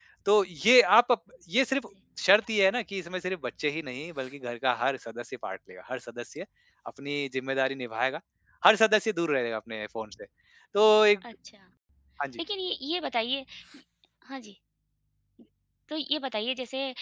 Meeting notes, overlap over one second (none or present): none